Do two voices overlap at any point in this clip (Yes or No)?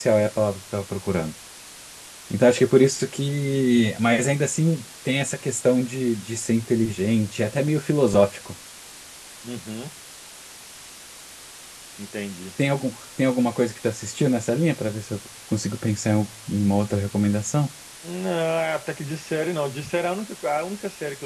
No